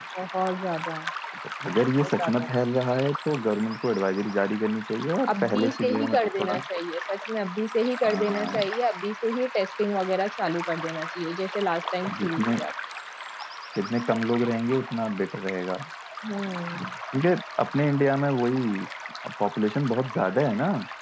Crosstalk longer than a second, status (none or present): present